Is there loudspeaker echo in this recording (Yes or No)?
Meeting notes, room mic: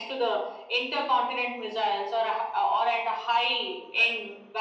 Yes